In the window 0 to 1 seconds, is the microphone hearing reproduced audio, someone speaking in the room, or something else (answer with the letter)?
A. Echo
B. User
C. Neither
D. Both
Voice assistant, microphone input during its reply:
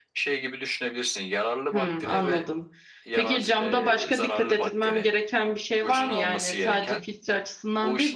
A